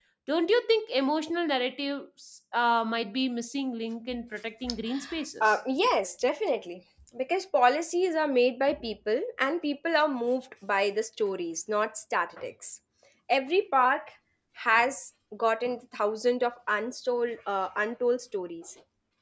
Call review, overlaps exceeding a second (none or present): none